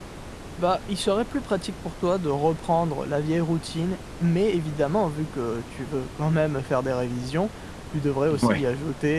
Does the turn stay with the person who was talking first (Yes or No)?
Yes